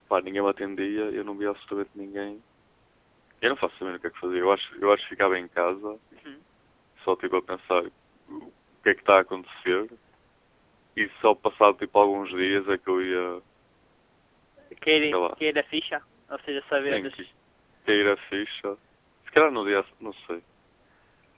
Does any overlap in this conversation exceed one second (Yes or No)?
No